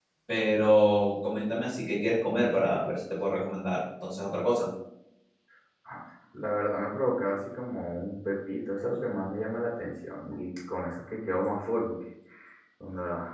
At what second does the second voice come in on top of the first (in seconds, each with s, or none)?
none